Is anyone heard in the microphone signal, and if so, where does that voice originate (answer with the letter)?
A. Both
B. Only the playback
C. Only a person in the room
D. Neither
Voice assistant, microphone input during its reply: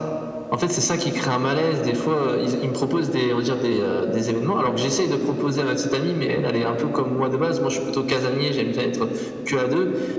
B